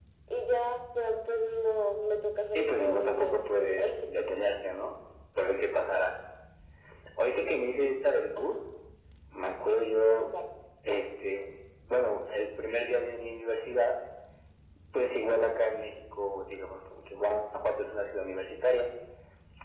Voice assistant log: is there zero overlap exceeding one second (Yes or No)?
No